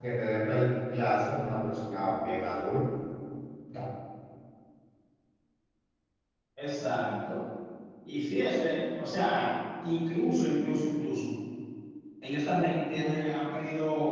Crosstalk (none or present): none